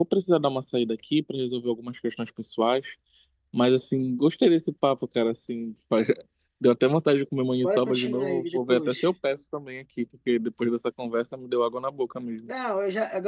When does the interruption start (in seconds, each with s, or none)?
7.6 s